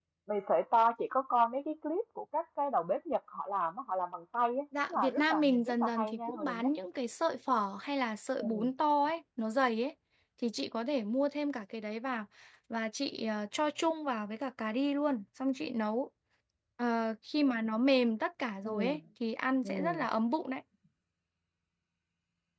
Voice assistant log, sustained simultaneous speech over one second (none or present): present